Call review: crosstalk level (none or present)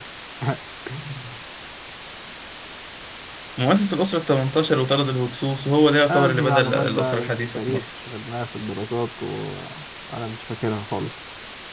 present